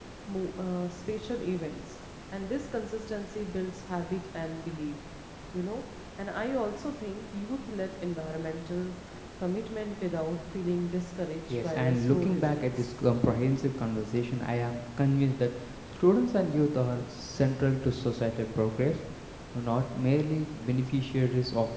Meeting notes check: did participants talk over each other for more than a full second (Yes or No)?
Yes